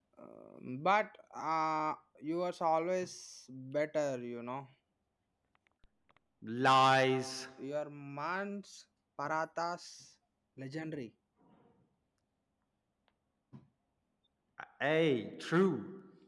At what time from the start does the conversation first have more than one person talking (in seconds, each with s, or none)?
none